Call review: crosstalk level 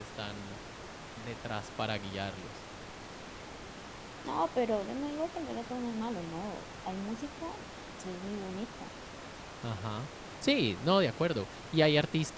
none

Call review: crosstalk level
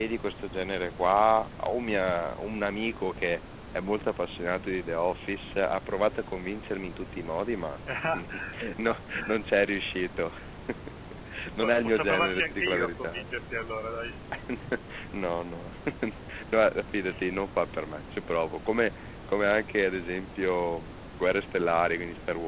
present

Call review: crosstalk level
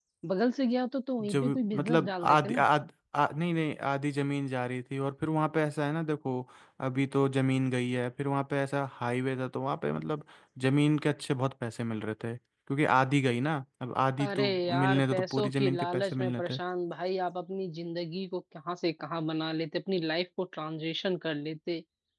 present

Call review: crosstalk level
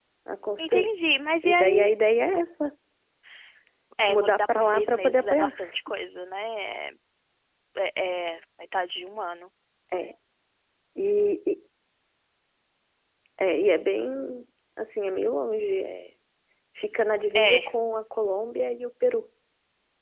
present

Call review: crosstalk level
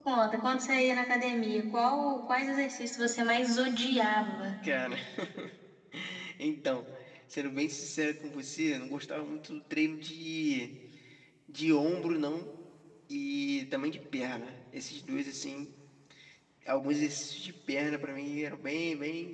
none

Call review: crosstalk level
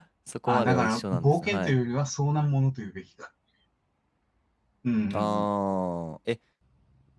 present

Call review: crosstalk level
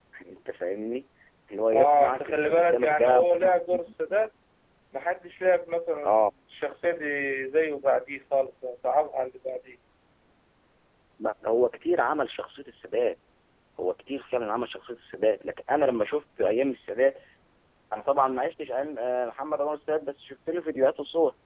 present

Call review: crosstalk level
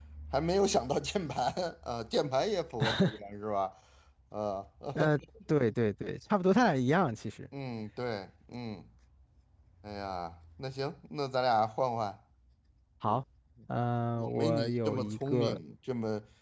present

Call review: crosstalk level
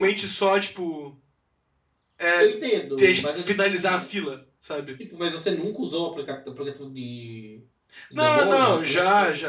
present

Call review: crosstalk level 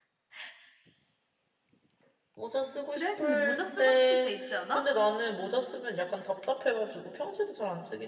present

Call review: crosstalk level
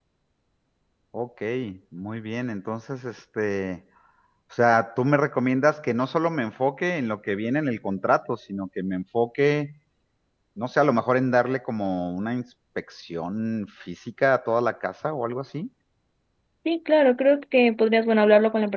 none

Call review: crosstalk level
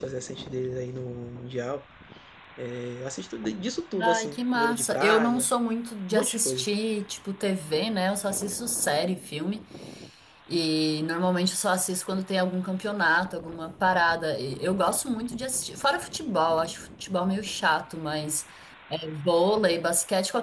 present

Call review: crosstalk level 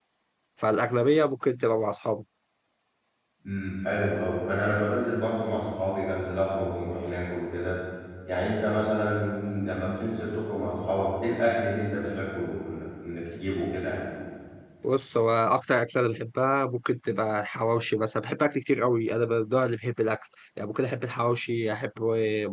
none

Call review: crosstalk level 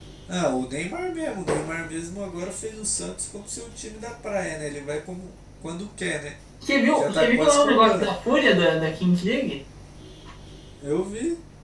present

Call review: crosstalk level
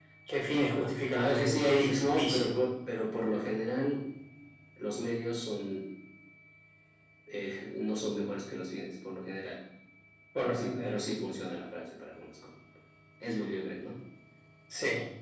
present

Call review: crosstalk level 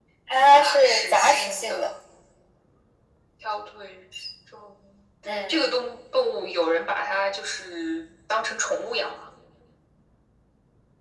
present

